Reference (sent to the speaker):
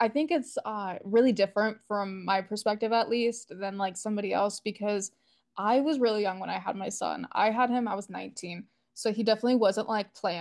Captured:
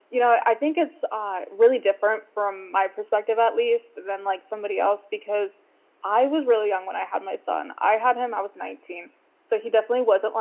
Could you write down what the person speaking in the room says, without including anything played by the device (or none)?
none